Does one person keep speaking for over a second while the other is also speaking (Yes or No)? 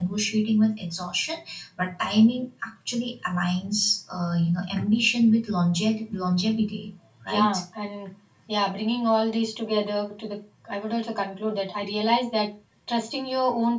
No